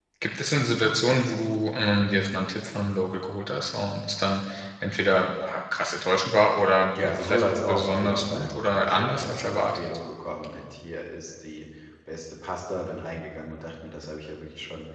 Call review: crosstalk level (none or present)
present